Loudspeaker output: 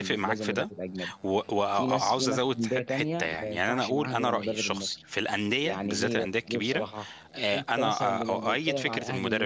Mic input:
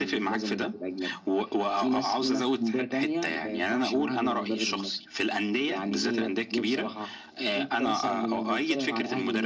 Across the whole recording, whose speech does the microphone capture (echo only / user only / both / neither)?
echo only